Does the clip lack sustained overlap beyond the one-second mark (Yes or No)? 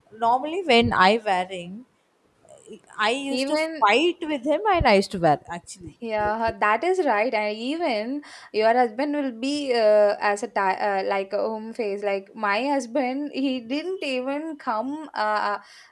Yes